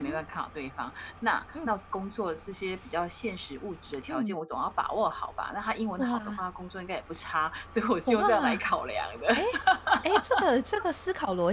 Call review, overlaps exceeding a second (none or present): none